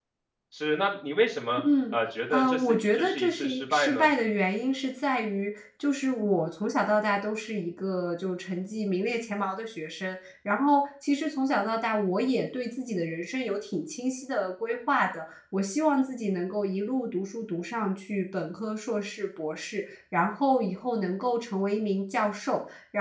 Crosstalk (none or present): present